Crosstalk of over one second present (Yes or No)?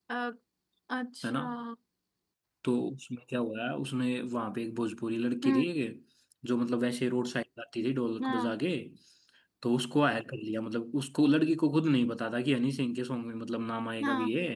No